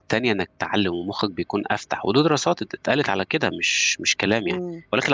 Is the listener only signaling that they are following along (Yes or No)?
No